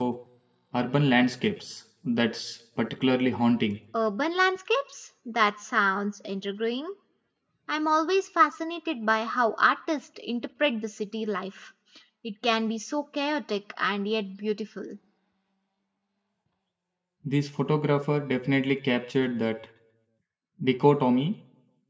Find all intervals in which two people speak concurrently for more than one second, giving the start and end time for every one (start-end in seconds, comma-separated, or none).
none